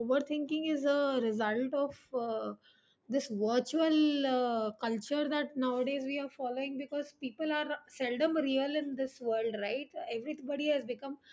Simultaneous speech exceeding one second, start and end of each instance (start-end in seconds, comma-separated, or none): none